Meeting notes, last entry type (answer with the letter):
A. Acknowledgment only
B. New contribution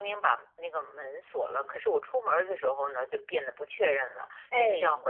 A